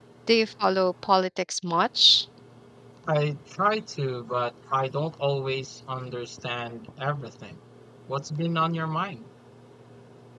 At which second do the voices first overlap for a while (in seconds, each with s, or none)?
none